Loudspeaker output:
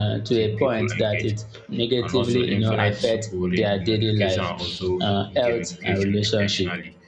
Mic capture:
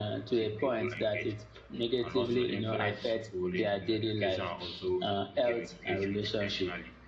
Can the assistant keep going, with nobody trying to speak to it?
Yes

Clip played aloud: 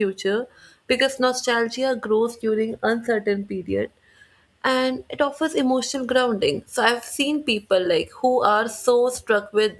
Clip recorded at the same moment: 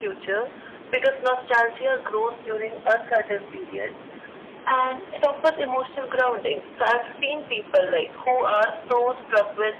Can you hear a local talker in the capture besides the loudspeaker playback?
No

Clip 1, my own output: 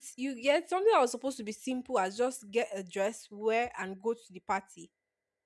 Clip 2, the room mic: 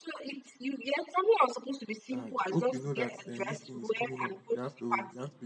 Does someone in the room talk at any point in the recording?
Yes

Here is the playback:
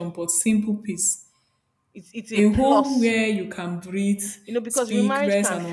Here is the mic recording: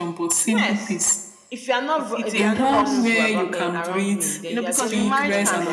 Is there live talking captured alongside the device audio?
Yes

